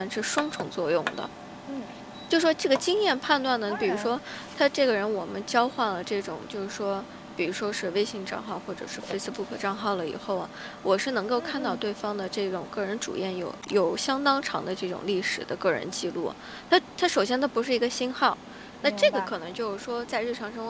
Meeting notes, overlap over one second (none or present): none